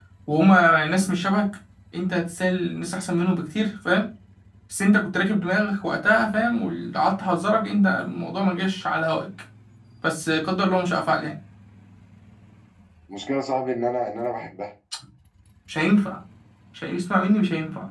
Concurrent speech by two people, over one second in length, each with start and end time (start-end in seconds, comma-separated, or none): none